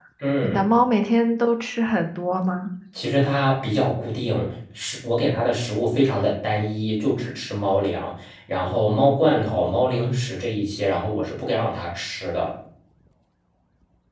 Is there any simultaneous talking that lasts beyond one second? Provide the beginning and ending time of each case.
none

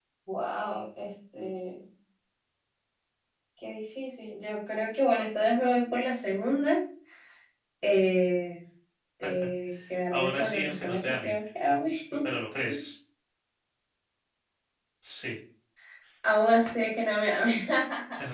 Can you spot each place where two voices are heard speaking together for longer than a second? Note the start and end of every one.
10.1-11.3

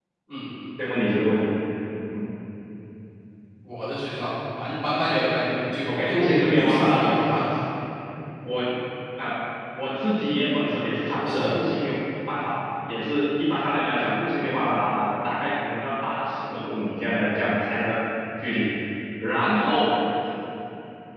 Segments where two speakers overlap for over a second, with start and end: 5.9-7.4

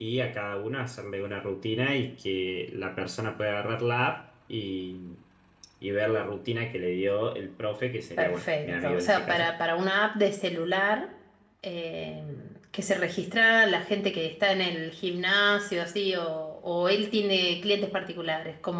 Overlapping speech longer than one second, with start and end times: 8.2-9.5

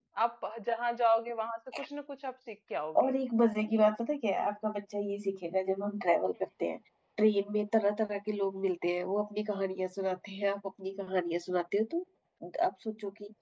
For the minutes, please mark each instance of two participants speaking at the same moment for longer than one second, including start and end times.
none

